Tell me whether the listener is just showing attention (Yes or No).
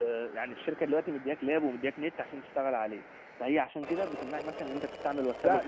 No